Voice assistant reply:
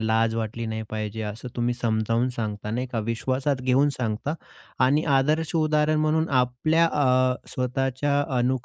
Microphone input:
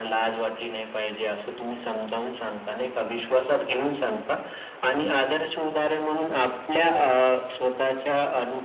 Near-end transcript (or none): none